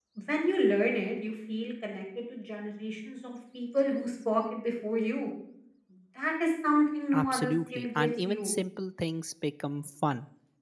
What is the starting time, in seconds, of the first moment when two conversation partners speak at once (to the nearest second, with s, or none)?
7 s